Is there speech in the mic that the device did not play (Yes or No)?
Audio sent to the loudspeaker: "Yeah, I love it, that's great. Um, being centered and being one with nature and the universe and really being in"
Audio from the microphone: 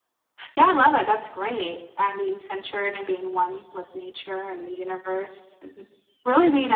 No